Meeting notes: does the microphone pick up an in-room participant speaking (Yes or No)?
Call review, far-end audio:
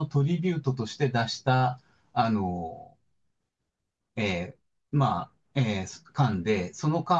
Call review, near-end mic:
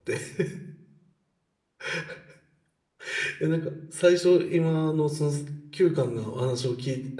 Yes